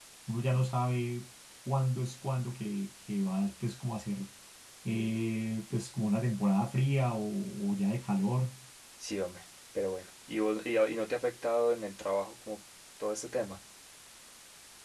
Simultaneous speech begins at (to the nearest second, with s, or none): none